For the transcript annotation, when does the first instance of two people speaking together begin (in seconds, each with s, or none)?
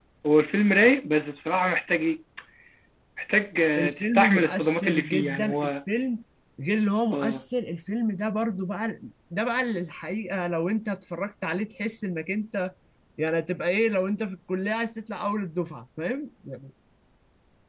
3.8 s